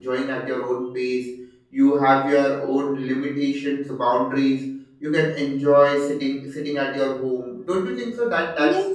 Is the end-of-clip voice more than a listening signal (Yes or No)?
Yes